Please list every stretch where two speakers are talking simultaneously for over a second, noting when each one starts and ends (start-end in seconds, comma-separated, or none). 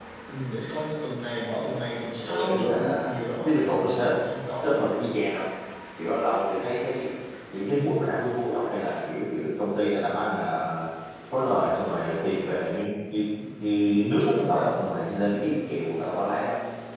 2.2-4.1